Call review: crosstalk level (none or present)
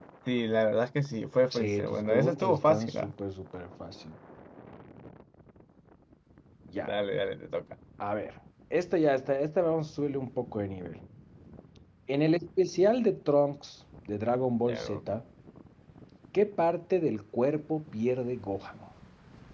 present